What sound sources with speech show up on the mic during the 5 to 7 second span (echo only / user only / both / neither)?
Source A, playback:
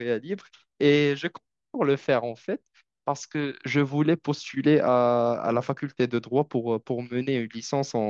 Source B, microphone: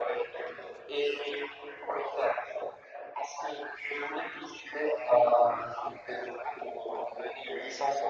echo only